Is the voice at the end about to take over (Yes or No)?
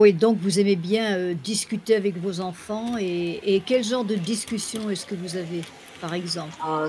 Yes